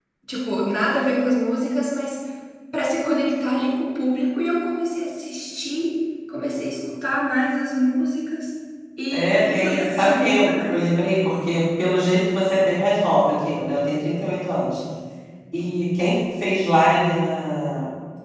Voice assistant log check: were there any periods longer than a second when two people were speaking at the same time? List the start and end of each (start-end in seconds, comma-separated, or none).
9.1-10.9